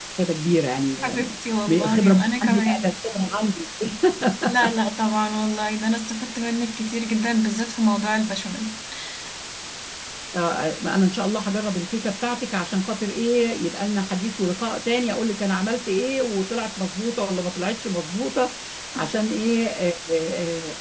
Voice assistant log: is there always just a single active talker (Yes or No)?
No